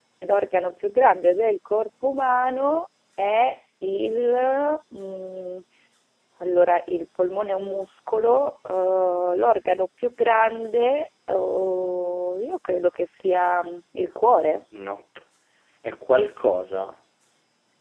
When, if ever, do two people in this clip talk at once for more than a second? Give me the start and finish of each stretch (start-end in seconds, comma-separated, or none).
none